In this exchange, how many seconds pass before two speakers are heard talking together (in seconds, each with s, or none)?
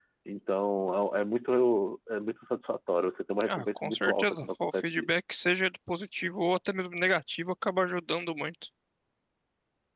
3.4 s